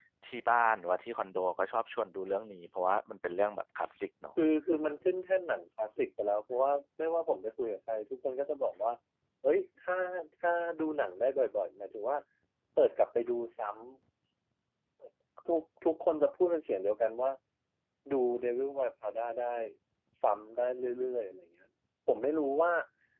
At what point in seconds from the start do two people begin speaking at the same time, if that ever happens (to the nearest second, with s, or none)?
none